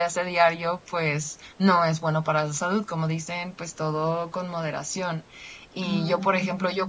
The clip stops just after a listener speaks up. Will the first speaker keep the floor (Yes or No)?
Yes